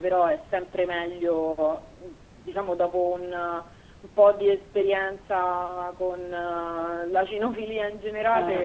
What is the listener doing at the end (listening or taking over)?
listening